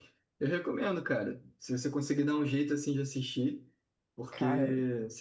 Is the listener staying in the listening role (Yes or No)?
Yes